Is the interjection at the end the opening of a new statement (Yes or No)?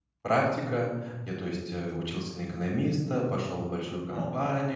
No